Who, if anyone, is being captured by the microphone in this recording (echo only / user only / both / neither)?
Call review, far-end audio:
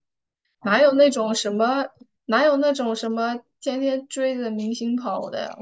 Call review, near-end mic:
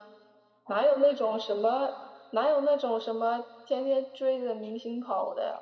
echo only